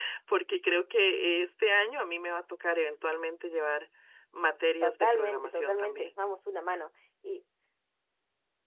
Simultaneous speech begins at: 4.8 s

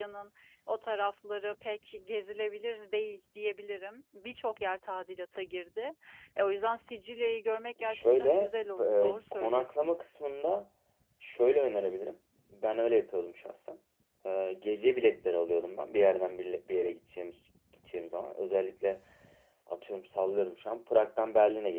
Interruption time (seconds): 7.8 s

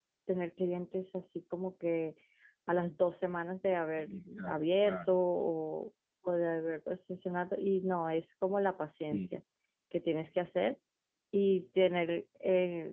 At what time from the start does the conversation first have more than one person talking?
4.0 s

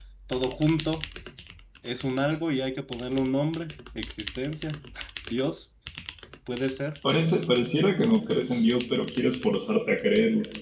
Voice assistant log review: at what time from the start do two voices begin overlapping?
none

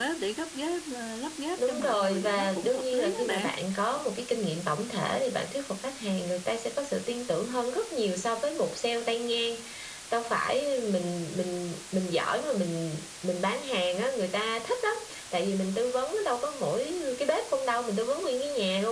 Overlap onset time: 1.6 s

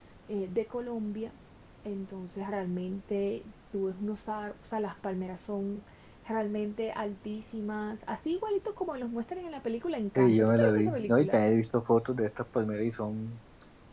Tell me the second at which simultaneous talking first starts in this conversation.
10.2 s

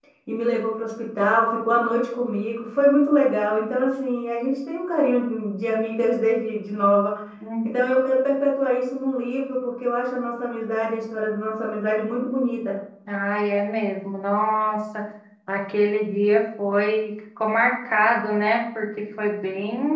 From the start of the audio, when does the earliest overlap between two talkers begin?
none

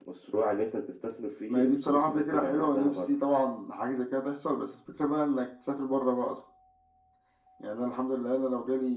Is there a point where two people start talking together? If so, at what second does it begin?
1.5 s

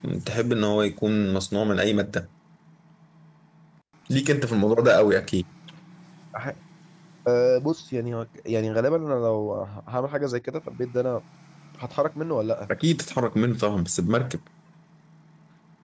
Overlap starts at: none

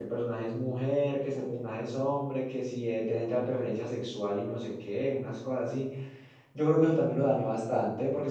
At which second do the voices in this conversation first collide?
none

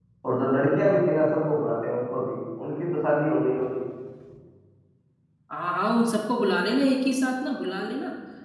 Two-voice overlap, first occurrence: none

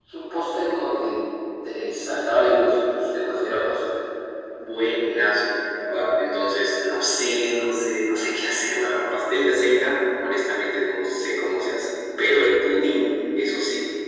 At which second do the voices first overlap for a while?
none

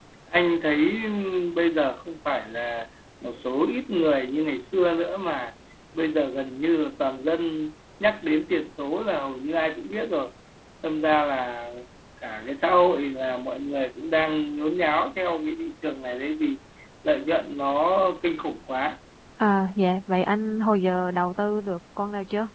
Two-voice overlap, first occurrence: none

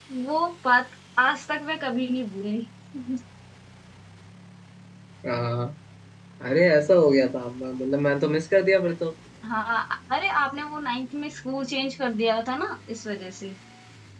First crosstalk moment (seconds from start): none

